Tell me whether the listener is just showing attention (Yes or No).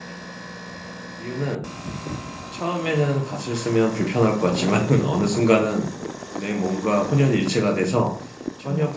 Yes